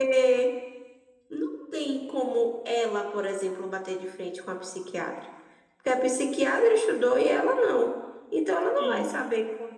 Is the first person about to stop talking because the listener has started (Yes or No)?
No